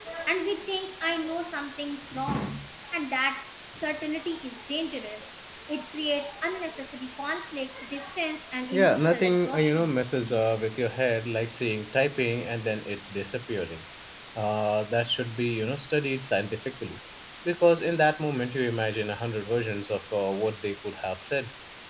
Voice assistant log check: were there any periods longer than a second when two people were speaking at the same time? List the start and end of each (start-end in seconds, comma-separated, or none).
8.7-9.9